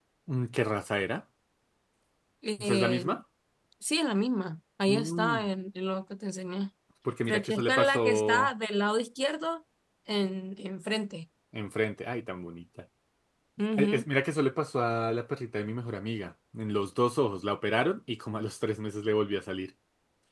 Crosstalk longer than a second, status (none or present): present